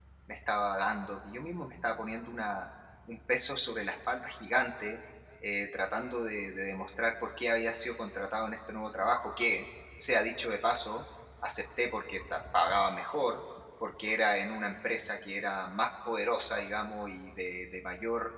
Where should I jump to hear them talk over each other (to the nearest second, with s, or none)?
none